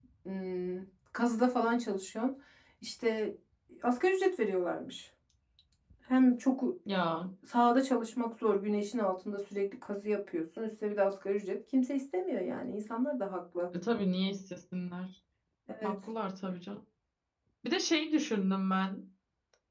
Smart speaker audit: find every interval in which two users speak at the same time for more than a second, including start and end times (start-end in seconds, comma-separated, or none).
none